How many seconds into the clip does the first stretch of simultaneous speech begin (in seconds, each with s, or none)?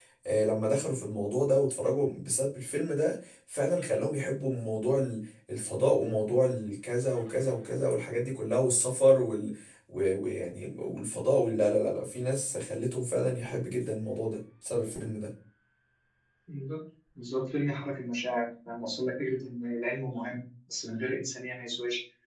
none